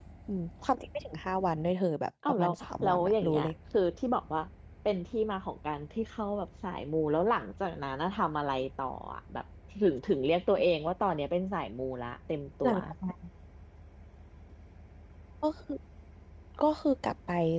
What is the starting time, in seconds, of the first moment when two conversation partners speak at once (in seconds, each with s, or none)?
2.3 s